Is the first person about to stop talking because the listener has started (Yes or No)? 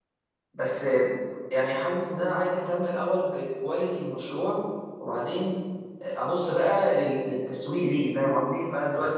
No